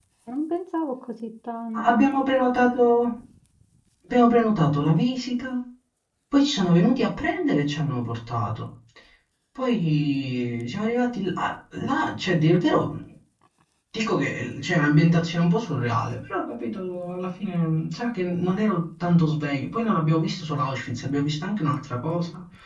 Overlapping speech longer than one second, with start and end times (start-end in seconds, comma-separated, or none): none